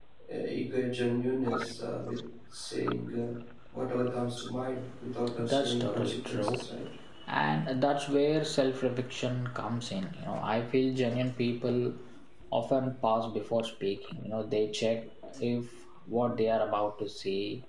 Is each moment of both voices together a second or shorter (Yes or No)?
No